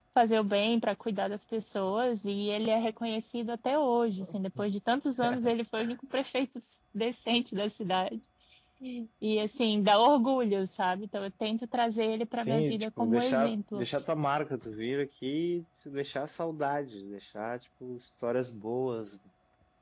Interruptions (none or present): present